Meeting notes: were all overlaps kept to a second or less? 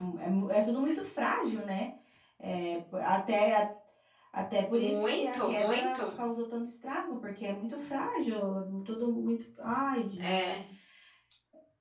No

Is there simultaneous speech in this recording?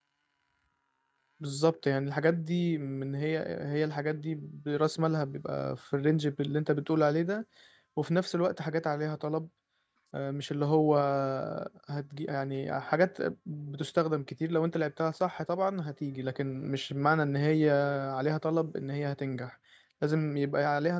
No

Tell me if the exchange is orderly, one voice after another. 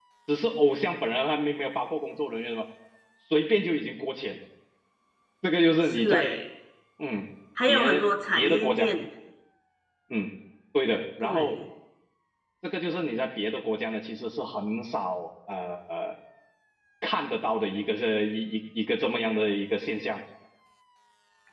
No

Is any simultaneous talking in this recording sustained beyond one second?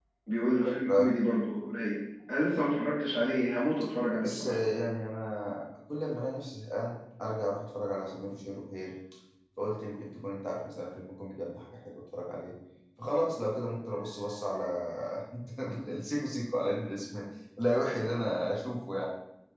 No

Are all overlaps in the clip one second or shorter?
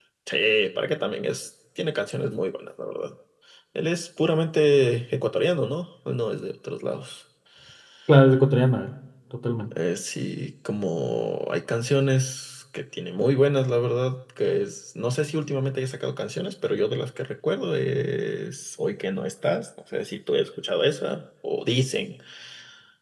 Yes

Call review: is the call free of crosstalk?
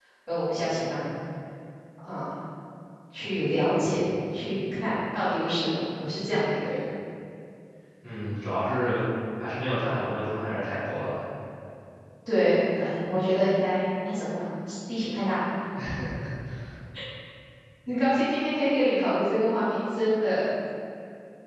Yes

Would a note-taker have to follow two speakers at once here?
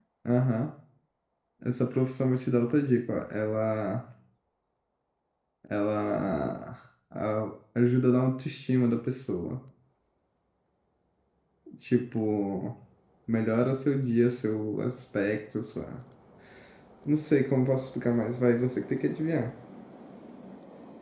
No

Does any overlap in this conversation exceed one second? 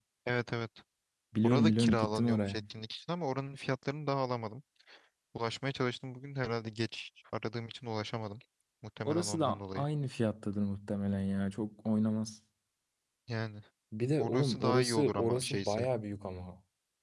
Yes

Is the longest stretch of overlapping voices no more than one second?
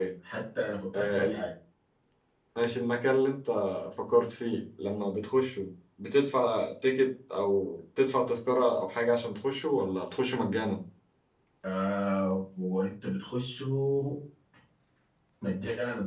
Yes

